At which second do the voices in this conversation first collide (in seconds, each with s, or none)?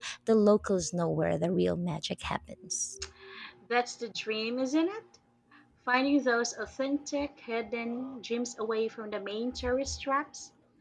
none